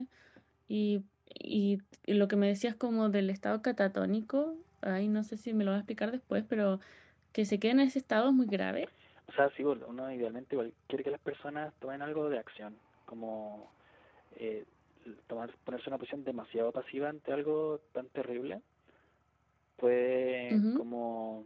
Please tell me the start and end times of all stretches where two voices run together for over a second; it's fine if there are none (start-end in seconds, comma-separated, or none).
none